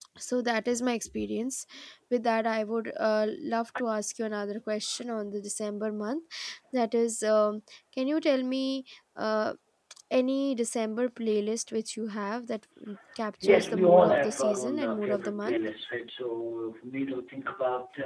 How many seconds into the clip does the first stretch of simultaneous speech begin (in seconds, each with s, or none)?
13.4 s